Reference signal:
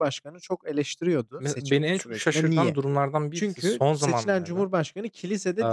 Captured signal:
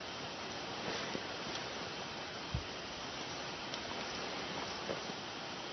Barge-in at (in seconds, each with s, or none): none